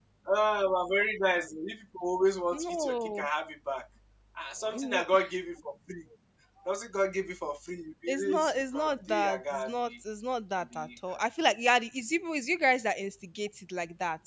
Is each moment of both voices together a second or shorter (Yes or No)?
No